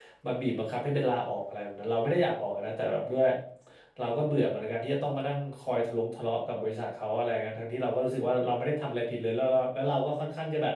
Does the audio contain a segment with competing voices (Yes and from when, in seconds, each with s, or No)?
No